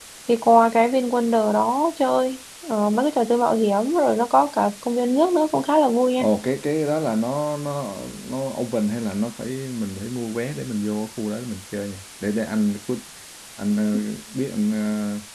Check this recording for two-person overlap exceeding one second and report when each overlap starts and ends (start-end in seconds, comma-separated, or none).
none